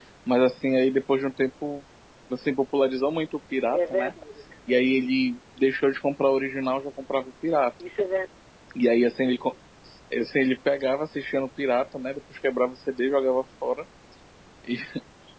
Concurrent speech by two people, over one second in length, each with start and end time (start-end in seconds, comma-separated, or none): none